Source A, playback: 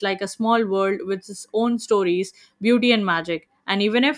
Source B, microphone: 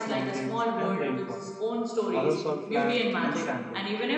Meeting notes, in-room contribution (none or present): present